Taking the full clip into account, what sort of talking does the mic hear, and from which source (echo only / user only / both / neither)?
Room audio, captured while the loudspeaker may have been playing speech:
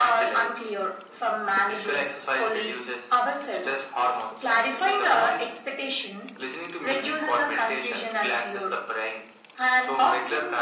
echo only